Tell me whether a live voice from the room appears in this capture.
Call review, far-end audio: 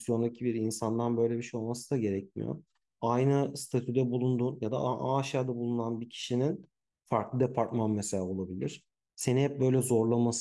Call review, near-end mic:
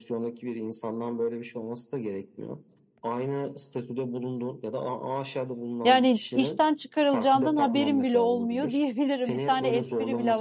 Yes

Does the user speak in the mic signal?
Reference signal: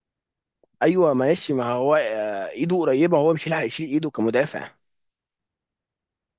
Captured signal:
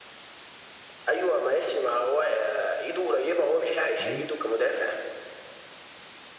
Yes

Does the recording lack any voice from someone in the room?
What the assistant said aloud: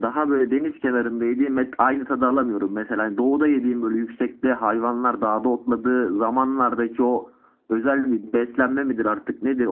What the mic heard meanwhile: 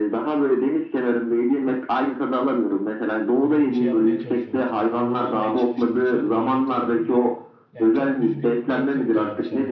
No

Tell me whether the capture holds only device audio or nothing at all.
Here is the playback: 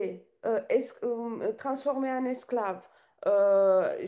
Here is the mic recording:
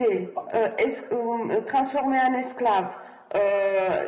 No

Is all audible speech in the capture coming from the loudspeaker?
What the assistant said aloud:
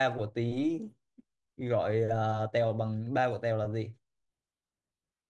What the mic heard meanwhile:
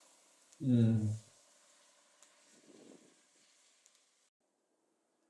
No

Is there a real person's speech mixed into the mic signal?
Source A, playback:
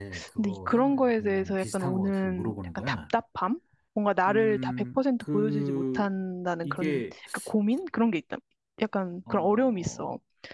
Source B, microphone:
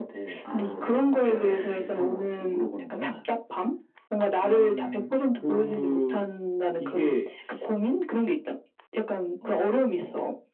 Yes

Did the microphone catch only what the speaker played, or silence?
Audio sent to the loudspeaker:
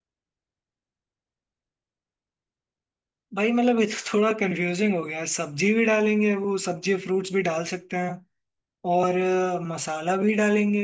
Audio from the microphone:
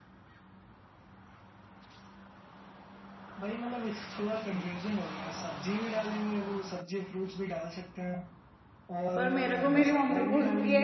No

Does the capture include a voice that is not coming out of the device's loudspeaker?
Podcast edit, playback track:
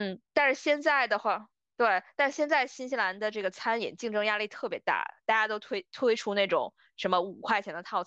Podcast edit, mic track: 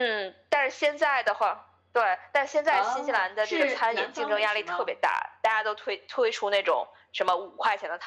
Yes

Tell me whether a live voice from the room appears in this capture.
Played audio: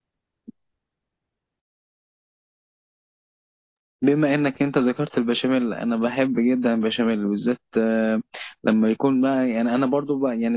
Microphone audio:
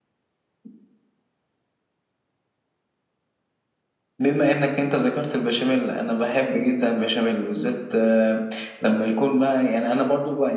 No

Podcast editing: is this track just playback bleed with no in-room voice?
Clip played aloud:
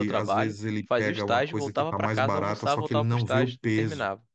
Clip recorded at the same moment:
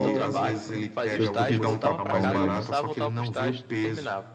No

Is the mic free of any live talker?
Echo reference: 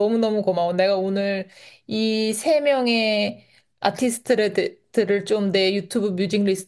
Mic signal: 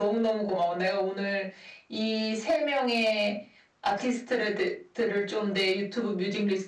Yes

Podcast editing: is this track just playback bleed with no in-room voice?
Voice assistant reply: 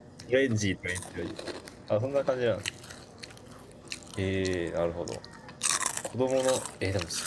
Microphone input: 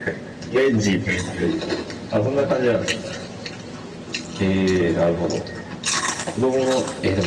No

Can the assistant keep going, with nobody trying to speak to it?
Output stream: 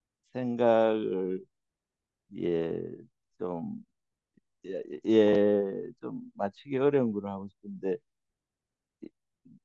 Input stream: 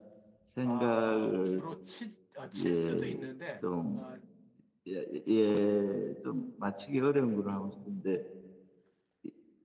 No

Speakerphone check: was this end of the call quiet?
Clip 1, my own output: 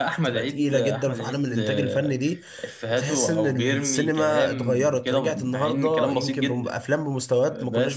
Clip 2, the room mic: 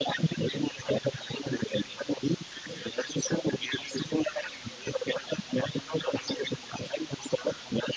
Yes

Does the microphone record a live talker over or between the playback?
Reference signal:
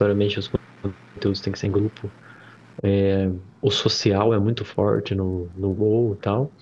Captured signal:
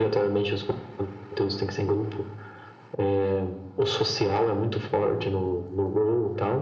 No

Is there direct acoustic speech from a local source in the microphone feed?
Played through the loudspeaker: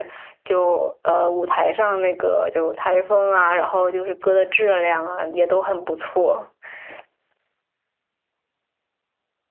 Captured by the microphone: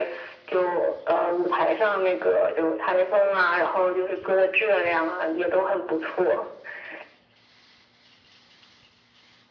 No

